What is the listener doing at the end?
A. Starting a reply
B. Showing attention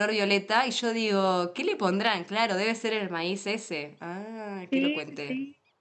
A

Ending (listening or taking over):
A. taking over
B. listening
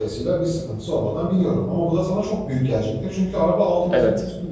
A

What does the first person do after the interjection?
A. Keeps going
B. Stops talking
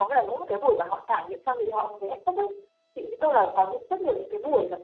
A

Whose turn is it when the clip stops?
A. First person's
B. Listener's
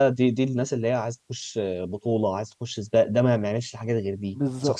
B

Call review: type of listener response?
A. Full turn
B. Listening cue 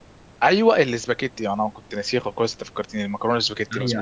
A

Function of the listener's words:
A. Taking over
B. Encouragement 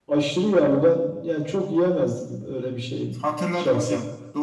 A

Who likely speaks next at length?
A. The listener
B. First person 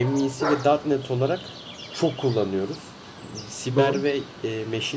B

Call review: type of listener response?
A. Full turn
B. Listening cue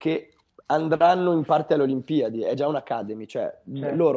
B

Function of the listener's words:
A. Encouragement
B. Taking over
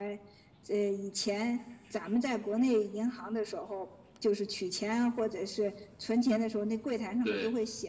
A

